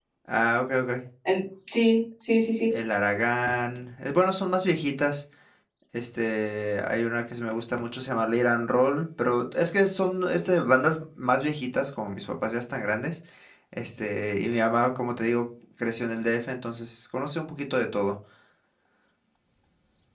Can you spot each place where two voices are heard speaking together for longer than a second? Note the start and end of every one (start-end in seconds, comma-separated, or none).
none